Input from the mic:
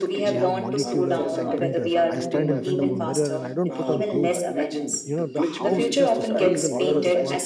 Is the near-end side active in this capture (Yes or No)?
Yes